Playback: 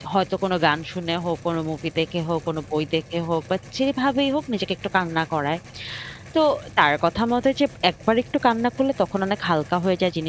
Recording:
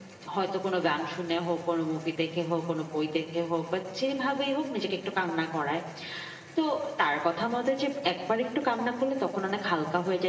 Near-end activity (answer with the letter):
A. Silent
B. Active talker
A